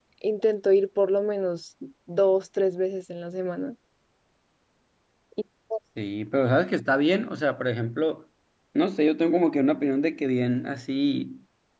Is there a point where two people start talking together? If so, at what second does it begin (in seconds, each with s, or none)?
none